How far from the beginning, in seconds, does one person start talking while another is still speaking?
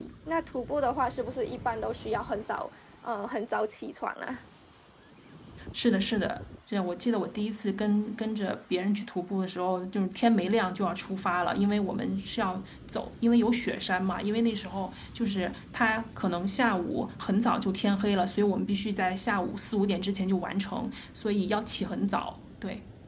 none

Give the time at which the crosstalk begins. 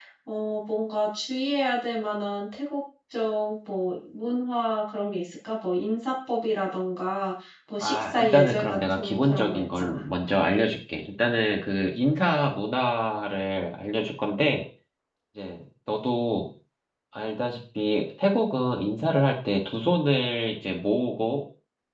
7.8 s

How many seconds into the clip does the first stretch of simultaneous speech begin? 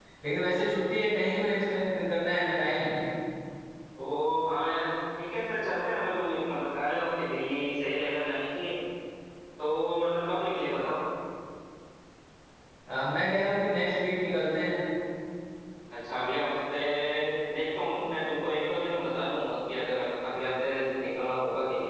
none

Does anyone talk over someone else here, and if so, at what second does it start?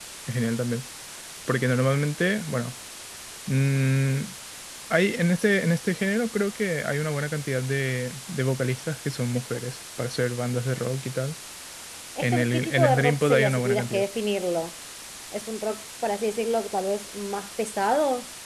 12.2 s

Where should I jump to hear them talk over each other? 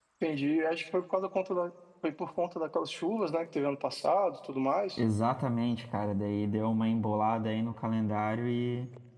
none

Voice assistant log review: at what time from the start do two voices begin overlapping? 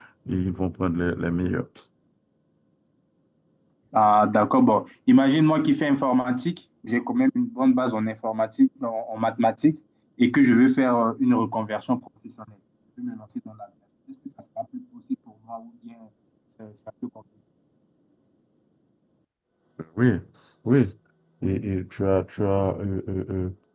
none

